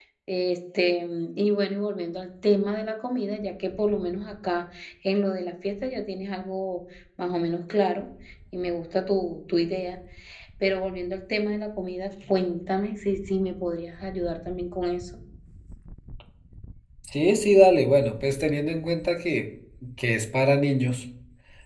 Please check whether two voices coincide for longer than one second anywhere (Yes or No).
No